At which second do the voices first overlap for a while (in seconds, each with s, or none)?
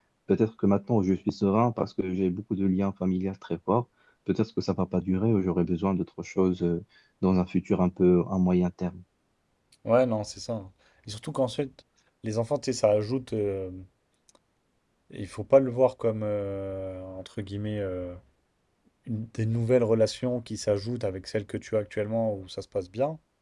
none